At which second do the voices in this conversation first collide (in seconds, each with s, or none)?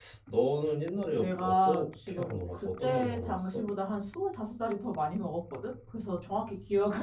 1.1 s